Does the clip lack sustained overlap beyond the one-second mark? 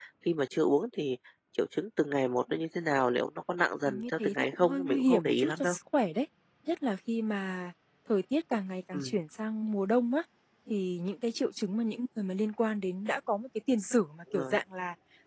No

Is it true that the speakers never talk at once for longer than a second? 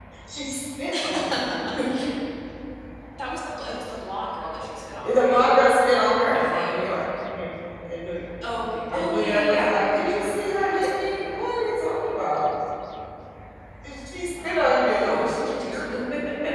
No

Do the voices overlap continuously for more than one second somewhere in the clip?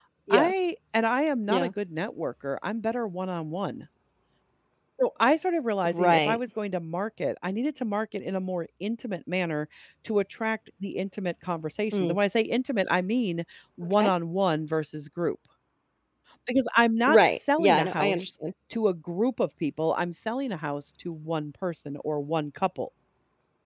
Yes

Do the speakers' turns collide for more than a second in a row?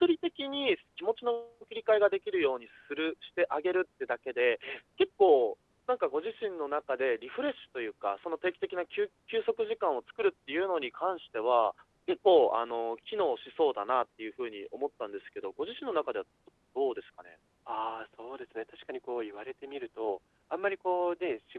No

